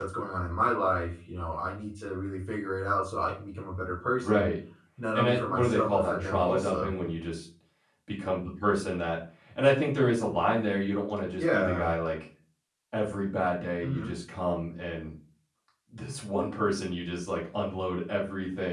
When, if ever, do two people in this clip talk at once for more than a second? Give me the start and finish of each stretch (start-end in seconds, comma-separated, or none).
5.1-7.0